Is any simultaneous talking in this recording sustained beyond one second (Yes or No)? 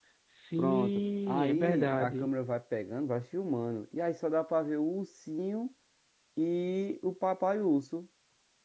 Yes